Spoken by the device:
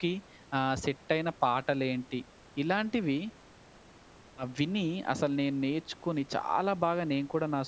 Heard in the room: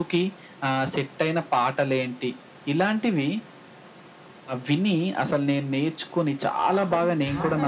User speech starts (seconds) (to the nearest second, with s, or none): 7 s